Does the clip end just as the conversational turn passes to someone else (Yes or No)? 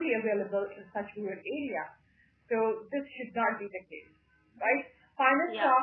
No